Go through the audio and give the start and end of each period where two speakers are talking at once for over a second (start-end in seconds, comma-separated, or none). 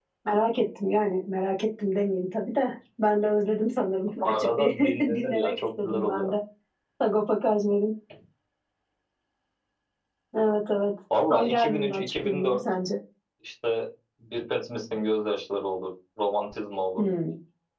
4.4-6.3, 11.3-12.6